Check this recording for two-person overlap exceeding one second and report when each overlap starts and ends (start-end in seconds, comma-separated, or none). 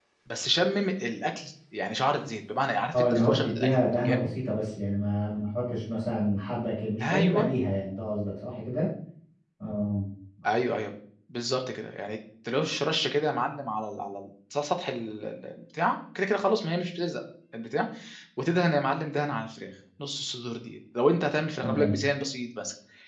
2.9-4.3